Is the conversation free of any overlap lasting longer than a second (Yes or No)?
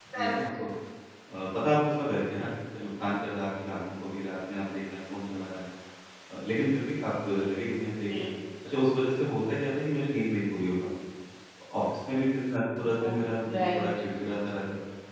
Yes